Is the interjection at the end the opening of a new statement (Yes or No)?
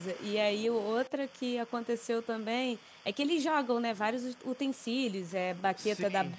No